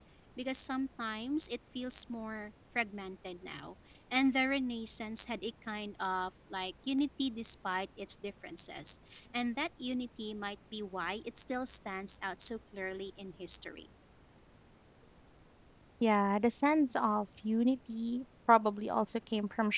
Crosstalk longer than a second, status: none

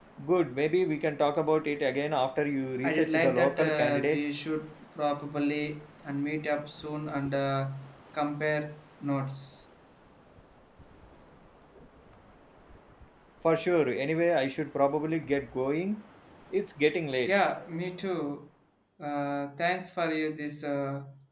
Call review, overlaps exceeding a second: present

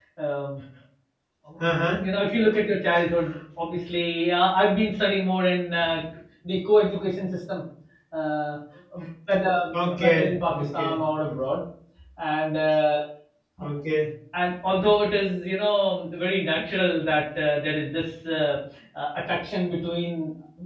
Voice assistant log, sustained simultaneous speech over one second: present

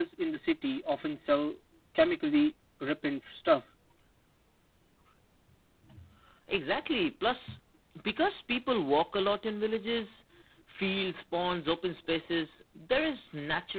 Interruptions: none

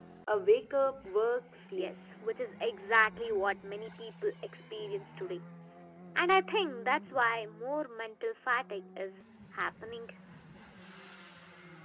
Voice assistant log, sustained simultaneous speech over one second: none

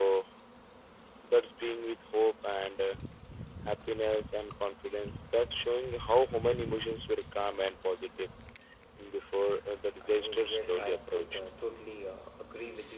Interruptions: present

